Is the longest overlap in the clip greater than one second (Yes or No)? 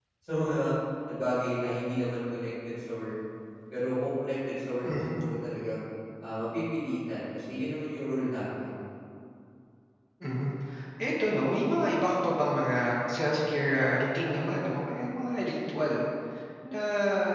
No